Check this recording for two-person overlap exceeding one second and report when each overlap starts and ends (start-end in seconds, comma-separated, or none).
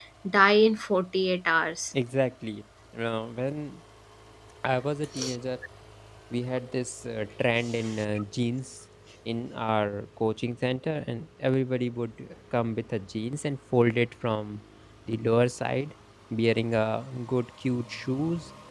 none